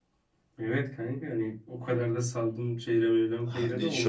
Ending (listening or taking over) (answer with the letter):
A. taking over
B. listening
A